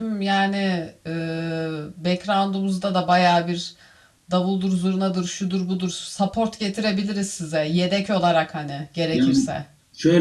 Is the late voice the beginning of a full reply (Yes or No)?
Yes